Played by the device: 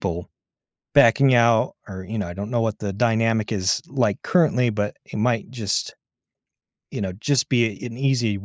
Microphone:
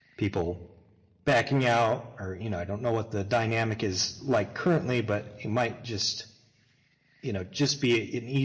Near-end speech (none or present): none